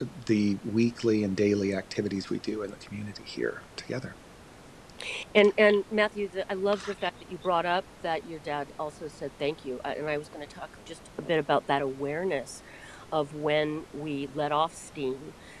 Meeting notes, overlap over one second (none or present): none